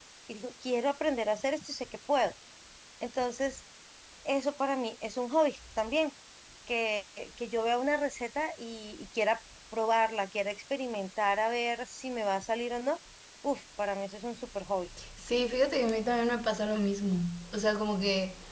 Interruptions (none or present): none